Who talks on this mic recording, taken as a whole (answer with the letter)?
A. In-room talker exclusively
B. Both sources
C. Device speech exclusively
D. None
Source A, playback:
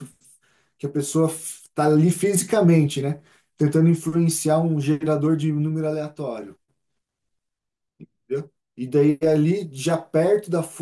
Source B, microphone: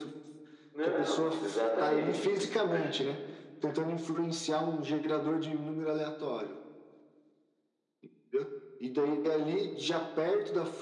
B